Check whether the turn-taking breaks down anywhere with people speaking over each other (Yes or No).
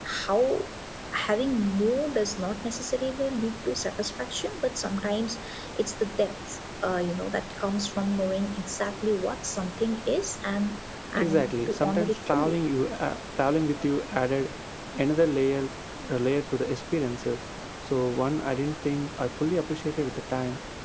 Yes